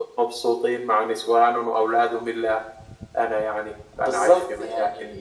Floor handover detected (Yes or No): Yes